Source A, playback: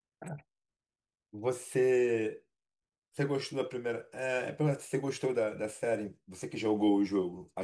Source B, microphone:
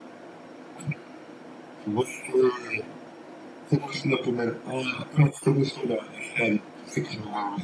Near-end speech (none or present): none